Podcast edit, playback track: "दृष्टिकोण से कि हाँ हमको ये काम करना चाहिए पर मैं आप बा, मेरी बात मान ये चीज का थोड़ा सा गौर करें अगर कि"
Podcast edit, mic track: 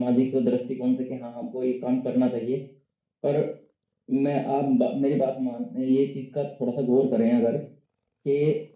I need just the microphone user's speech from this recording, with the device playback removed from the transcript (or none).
none